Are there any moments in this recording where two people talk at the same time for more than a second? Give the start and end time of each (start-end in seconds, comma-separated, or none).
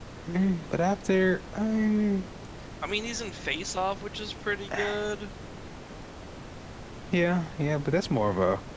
none